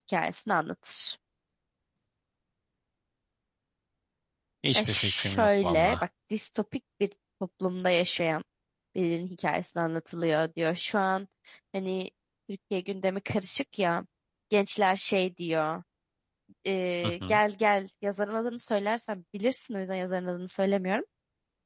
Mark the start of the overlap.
5 s

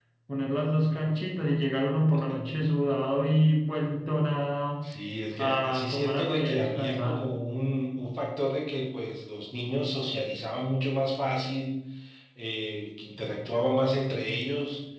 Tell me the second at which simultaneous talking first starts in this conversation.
5 s

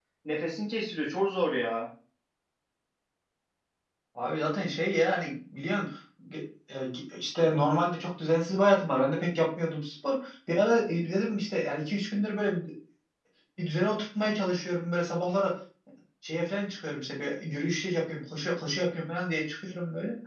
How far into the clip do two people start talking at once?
none

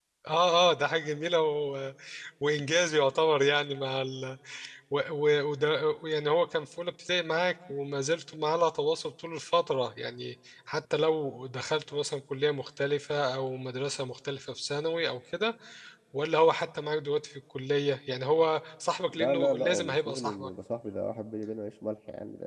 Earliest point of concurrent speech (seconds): 19 s

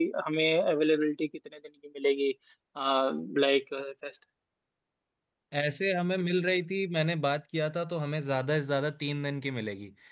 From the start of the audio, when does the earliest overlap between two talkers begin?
none

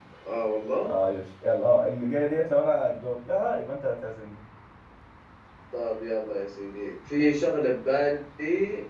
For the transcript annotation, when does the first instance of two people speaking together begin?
none

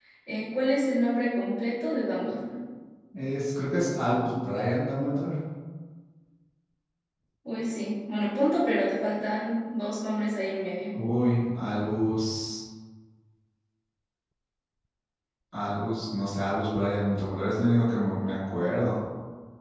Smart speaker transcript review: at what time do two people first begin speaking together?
none

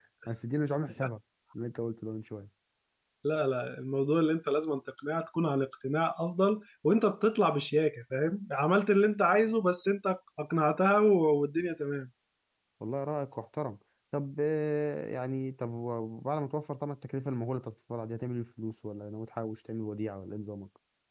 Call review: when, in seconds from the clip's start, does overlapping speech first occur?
none

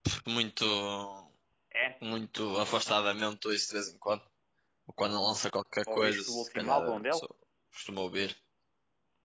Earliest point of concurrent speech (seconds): 6 s

